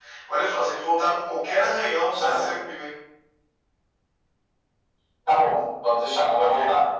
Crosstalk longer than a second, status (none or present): none